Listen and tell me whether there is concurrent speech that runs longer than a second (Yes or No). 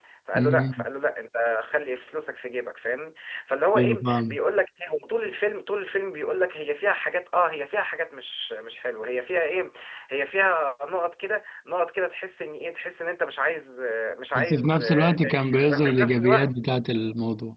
Yes